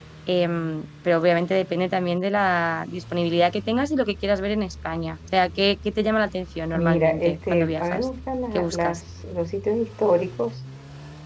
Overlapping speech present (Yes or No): Yes